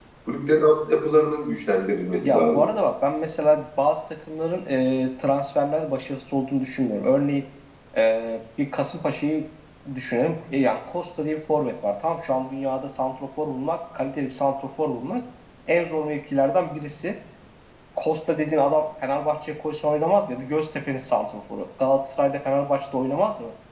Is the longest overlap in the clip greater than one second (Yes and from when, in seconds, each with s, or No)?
No